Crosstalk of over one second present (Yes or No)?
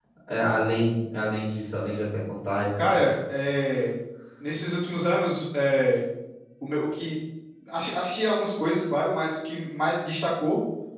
No